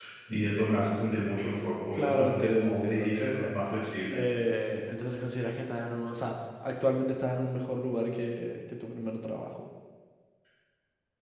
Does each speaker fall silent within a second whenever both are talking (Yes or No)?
No